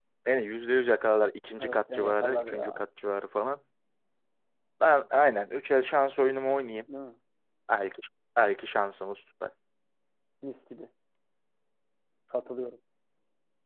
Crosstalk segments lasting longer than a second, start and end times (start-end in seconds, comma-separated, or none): 1.6-2.8